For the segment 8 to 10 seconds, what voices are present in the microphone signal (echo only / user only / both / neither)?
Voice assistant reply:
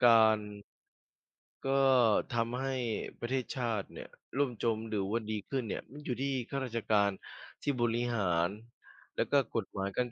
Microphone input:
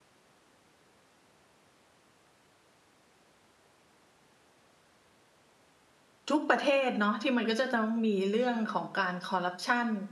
user only